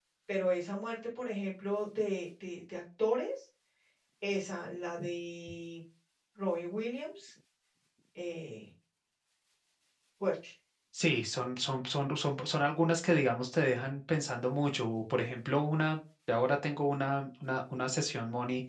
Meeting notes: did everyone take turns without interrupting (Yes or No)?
Yes